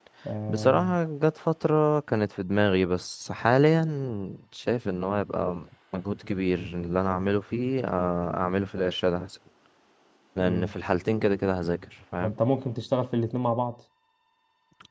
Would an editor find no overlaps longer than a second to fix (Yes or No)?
Yes